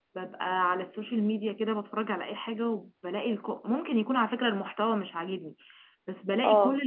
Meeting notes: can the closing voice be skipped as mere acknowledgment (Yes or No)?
Yes